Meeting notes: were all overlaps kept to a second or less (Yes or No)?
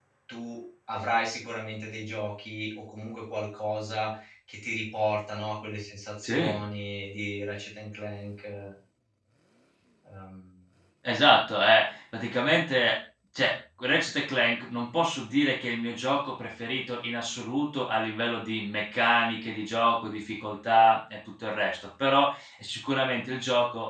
Yes